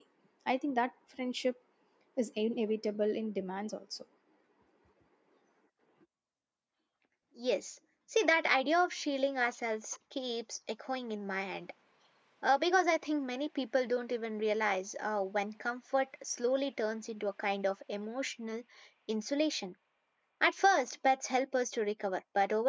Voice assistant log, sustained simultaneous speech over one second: none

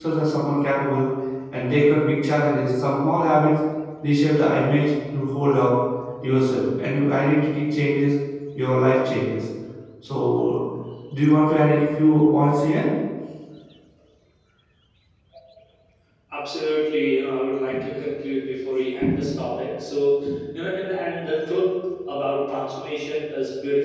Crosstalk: none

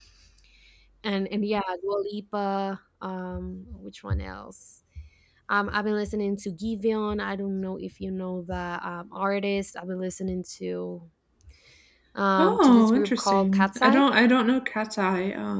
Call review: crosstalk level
present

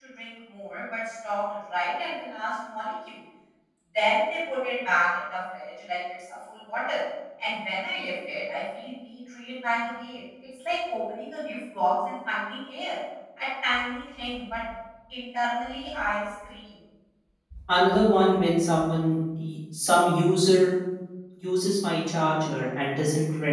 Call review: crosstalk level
none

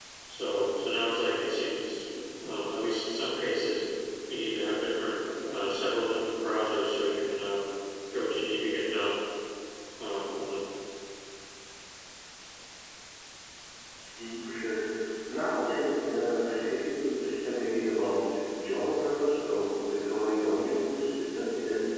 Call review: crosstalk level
none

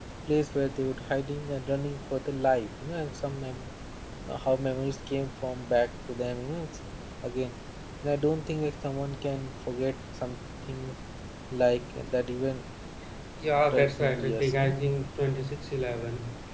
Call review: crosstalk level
present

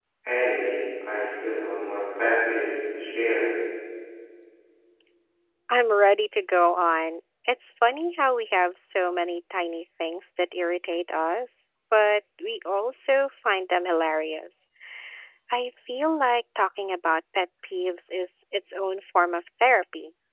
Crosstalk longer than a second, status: none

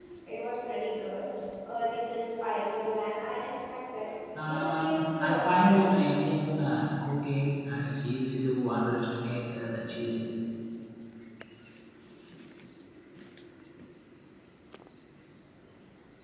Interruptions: present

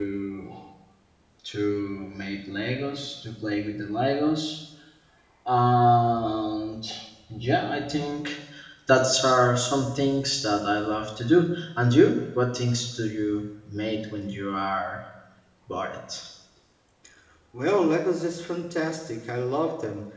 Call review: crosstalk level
none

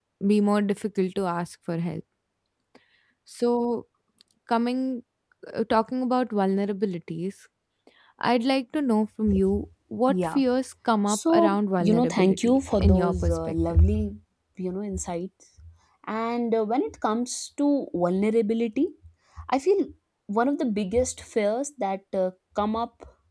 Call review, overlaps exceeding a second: present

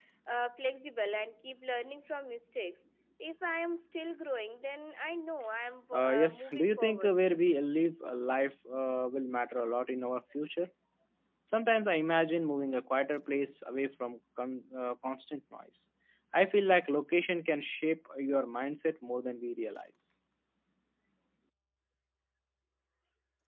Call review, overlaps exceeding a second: present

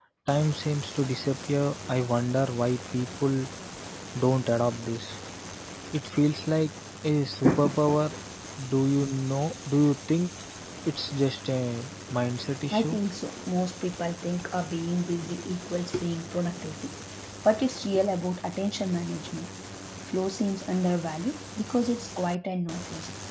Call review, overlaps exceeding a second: none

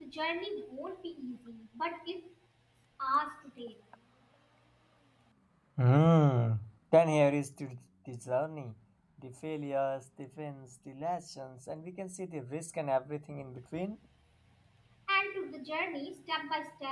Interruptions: none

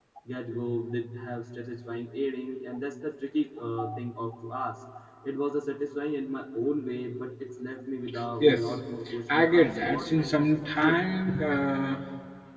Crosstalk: present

